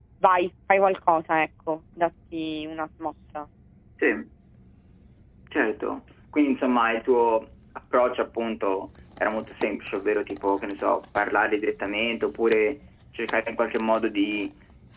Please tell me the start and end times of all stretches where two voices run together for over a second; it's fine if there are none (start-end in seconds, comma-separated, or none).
none